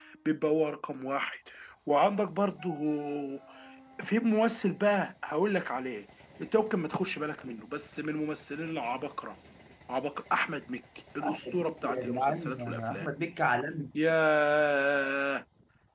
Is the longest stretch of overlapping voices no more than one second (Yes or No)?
No